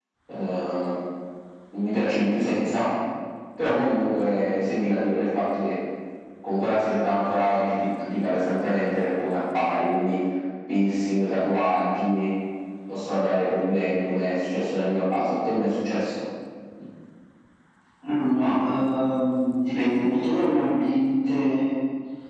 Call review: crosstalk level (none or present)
none